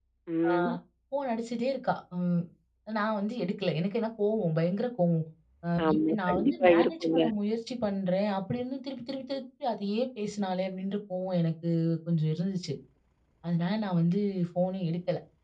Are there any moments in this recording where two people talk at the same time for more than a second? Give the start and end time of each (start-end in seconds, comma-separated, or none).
5.9-7.2